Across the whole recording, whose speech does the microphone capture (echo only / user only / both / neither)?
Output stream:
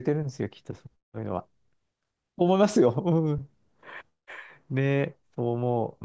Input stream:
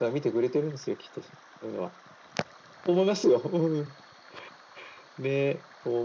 echo only